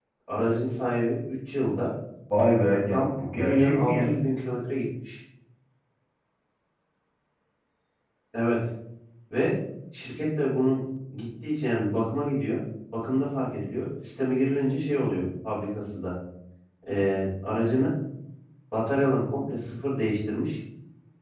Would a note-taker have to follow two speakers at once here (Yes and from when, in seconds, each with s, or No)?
Yes, from 2.9 s